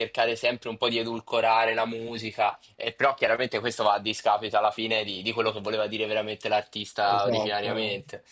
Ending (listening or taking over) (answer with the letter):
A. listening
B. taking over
B